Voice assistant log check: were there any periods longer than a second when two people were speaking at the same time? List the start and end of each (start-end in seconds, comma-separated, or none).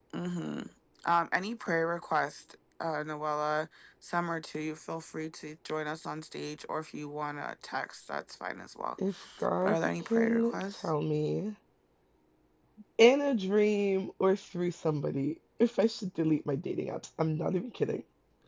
9.6-10.9